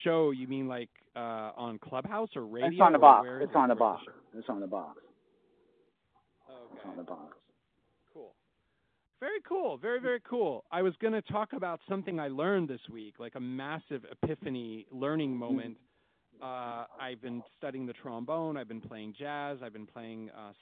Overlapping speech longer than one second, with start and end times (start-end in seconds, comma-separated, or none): 2.6-4.1